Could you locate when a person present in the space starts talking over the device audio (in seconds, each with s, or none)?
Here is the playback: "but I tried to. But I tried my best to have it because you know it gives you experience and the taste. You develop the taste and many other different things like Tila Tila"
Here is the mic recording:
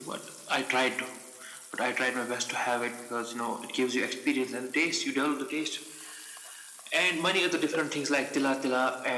none